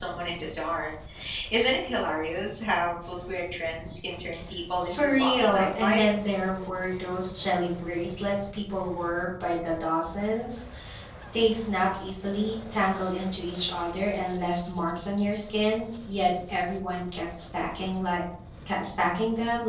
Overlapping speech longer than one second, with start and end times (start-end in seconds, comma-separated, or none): 4.8-6.0